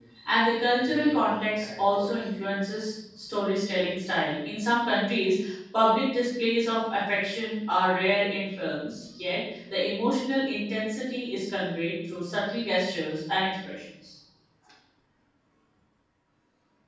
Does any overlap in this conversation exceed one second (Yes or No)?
Yes